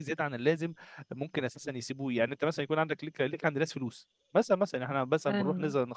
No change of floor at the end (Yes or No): Yes